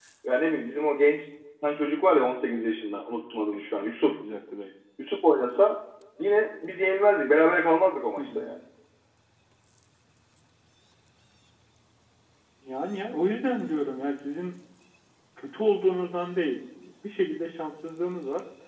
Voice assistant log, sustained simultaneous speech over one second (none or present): none